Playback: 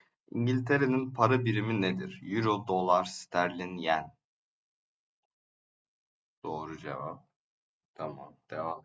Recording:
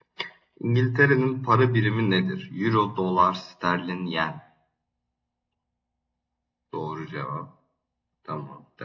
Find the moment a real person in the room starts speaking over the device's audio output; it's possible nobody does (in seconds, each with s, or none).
none